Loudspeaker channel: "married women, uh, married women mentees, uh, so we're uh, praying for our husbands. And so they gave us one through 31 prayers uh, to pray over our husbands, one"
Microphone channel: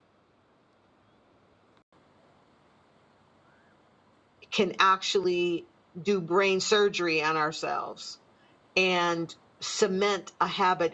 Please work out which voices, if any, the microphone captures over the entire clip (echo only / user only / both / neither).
user only